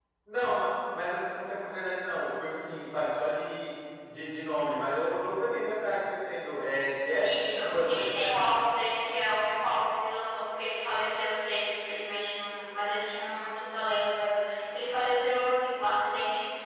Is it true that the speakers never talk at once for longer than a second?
No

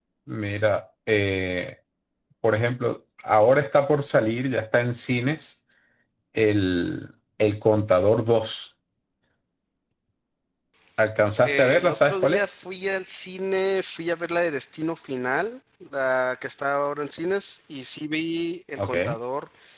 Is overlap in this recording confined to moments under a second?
No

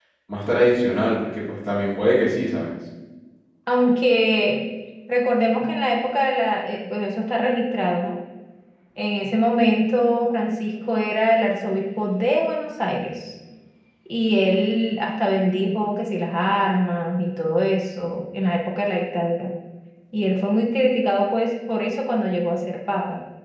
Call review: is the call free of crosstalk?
Yes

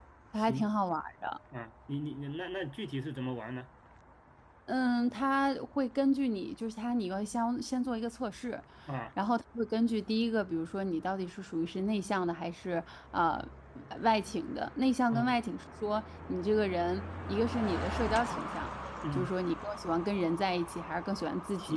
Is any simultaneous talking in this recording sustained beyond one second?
No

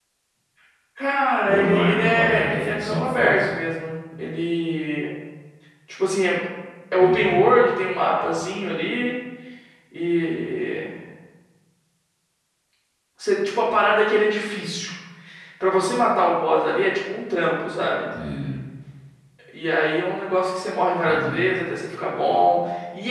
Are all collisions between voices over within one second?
No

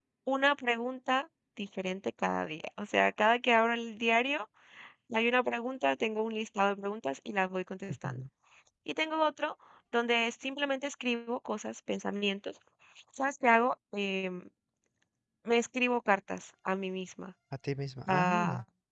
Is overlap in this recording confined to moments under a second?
Yes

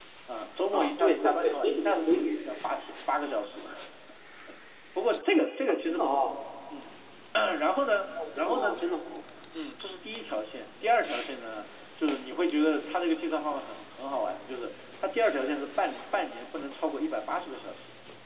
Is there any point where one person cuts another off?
Yes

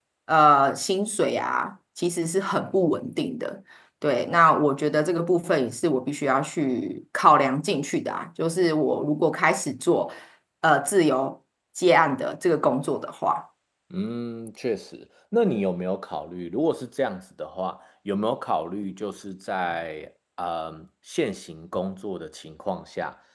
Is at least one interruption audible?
No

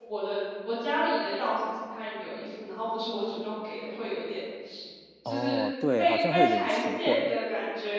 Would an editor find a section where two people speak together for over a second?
Yes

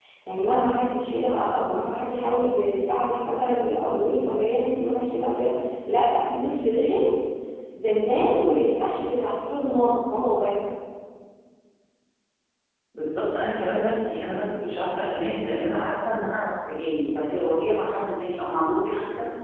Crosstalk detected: No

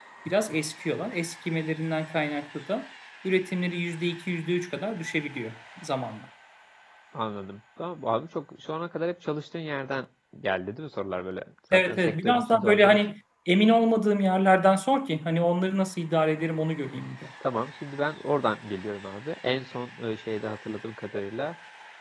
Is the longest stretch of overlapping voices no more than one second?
No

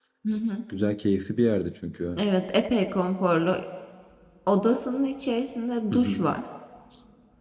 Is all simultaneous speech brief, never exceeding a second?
Yes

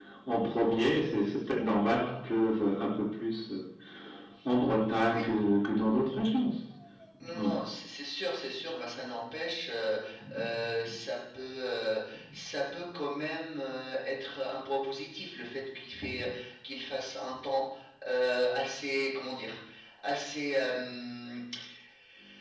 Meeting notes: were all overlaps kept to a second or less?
Yes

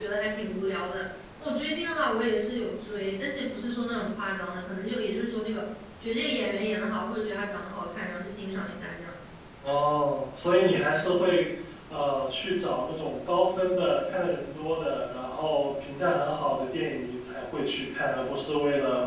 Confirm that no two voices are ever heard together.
Yes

